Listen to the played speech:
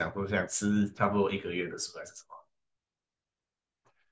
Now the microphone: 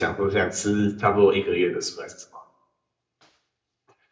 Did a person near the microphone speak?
No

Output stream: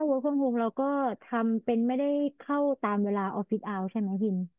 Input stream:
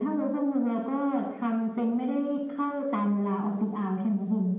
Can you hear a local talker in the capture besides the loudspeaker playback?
No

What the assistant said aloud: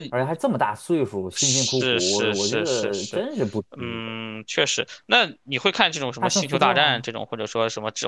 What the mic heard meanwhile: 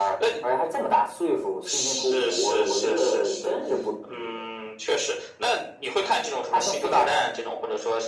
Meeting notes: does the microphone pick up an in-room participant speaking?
No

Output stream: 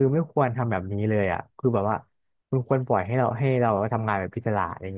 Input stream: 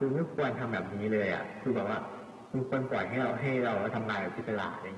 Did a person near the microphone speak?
No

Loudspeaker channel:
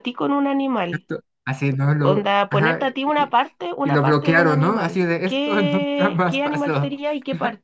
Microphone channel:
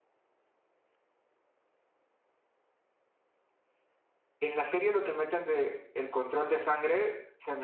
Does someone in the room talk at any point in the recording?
Yes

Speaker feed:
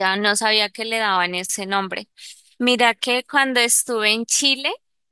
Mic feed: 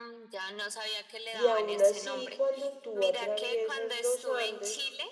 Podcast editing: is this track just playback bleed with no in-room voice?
No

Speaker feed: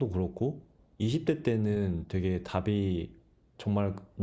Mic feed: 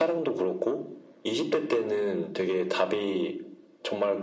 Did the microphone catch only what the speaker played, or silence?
Yes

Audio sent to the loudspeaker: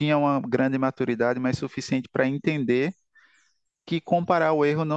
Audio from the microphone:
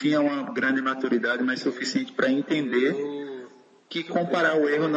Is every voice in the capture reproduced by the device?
No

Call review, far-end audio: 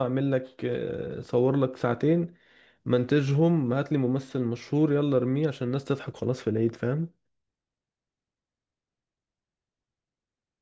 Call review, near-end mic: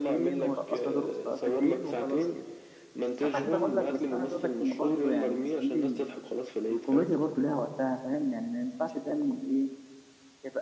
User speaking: Yes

